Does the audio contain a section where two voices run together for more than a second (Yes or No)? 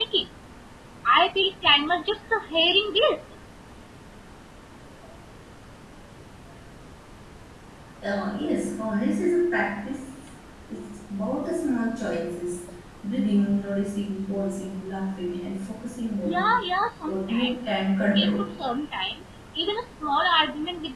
No